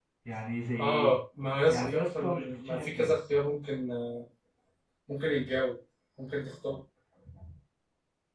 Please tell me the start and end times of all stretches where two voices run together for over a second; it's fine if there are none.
1.7-3.2

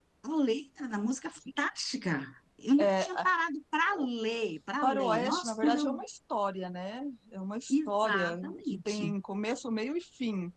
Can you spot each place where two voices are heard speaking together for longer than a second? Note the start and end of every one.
4.8-6.0, 7.7-9.1

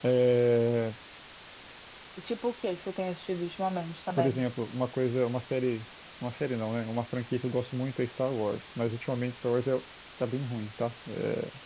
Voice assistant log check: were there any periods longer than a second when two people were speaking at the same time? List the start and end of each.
none

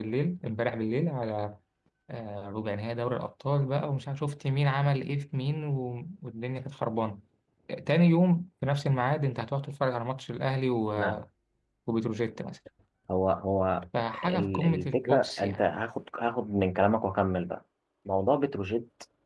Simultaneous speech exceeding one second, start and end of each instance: 14.2-15.6

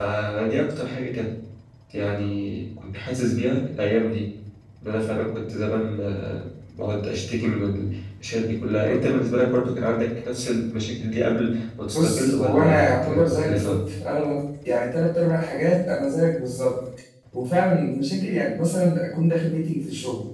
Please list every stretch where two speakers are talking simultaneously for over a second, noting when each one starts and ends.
11.9-13.8

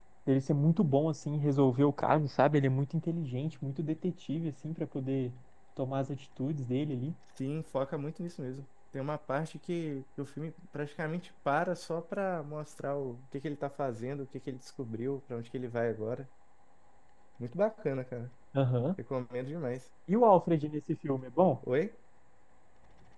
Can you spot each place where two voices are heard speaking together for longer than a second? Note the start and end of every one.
none

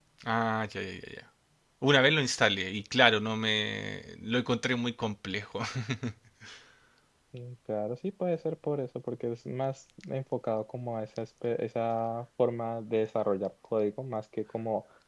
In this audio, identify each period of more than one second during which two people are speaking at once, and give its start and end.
none

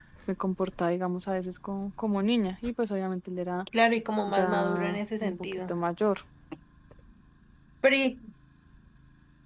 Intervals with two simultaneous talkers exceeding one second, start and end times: 4.3-5.7

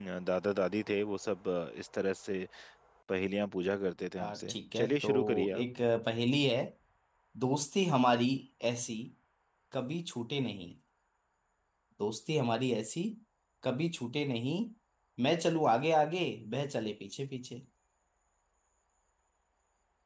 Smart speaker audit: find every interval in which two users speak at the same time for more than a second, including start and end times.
4.2-5.6

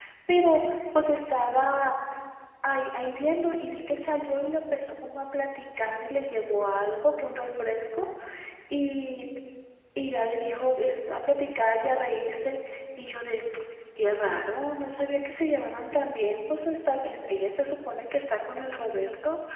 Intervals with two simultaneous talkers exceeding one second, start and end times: none

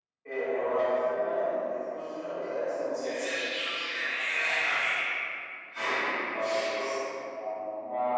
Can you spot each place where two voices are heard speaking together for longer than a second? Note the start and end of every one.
none

